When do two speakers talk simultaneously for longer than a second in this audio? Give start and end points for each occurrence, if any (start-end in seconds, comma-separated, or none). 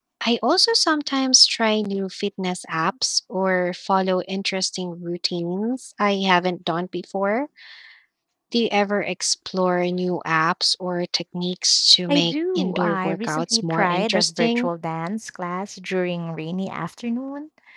12.1-14.7